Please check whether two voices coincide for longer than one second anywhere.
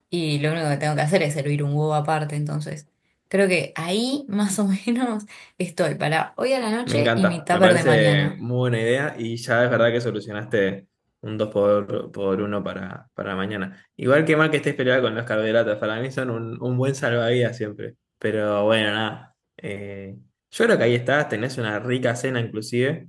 Yes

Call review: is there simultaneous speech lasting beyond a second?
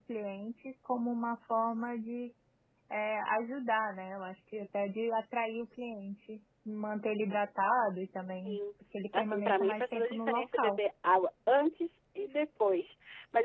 Yes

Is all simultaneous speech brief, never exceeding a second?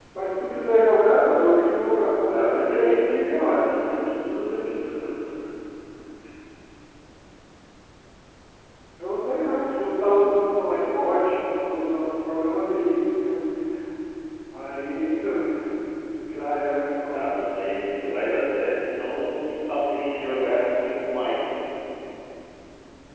No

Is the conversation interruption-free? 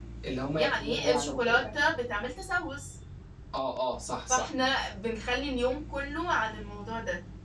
No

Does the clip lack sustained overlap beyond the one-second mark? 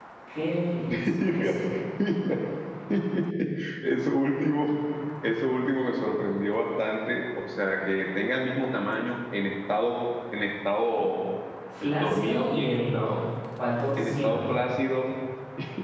No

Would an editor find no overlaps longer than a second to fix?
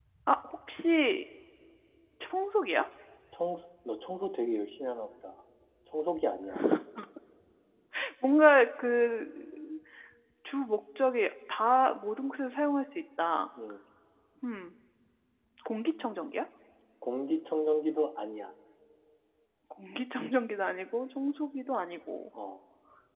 Yes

